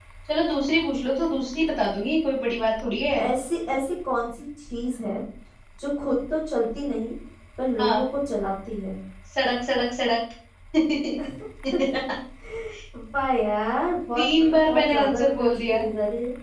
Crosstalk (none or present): present